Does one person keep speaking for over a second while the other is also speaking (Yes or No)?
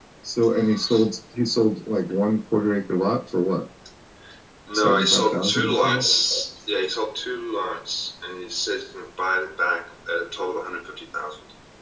Yes